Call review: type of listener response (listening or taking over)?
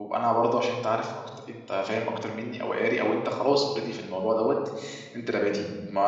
listening